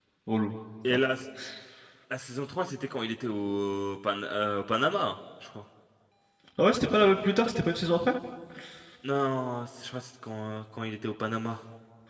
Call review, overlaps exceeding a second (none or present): none